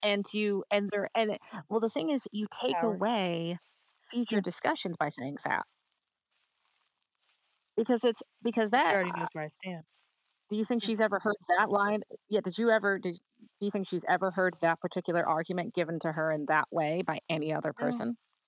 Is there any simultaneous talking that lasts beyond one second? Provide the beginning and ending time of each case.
none

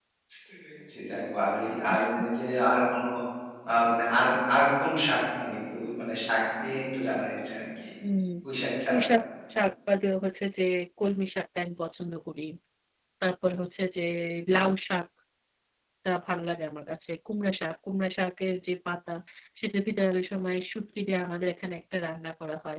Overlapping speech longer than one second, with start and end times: none

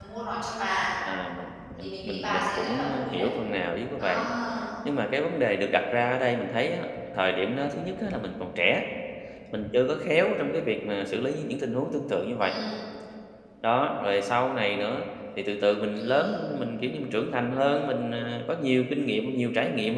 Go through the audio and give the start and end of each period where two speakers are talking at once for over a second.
1.8-3.3

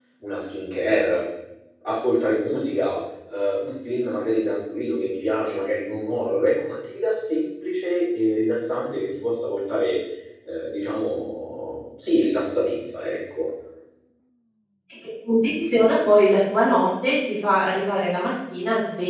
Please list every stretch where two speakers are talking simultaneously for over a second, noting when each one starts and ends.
none

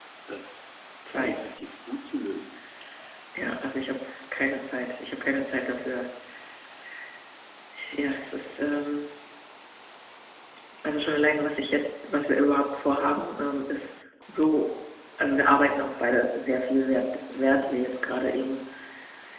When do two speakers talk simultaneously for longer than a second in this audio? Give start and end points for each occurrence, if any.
none

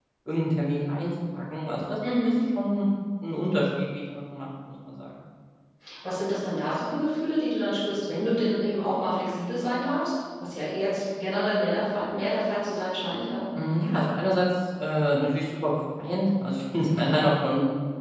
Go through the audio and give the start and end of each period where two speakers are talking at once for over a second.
none

